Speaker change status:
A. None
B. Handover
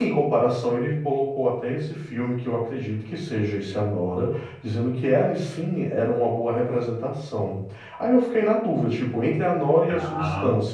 A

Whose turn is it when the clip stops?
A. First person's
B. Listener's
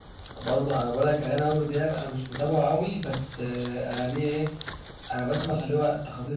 A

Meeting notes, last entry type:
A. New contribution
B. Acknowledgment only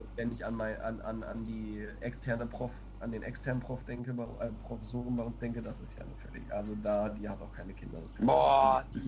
A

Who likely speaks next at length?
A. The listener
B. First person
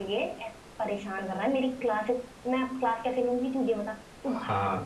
A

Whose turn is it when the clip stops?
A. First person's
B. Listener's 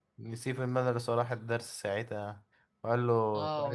B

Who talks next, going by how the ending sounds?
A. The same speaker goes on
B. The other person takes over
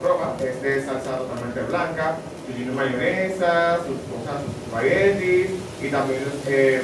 A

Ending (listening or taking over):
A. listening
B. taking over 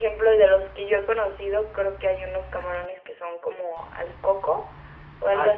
A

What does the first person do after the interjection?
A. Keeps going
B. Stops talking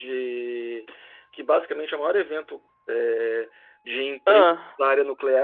A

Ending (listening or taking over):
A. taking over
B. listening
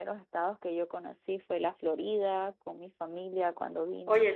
A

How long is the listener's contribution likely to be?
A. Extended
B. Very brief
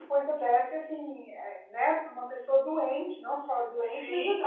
A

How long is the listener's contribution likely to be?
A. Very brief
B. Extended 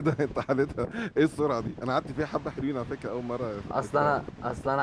B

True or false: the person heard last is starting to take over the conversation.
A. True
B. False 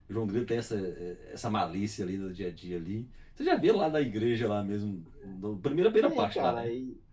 A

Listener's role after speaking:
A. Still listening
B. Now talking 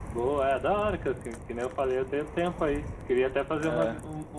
A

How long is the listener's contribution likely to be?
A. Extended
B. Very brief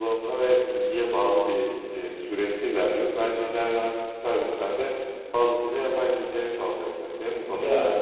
A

